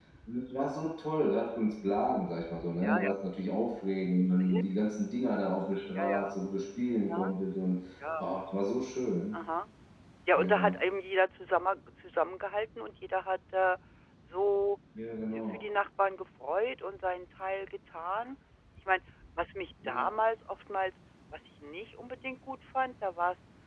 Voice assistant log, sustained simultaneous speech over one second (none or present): none